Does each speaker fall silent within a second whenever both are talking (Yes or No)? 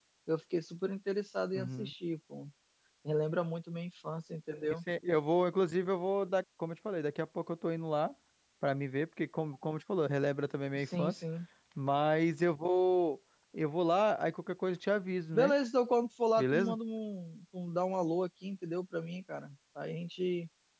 Yes